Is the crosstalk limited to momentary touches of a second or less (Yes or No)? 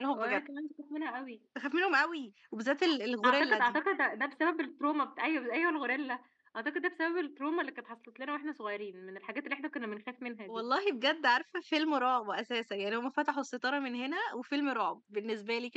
Yes